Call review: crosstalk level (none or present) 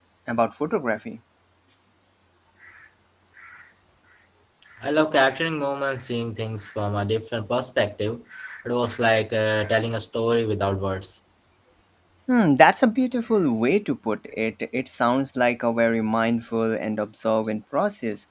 none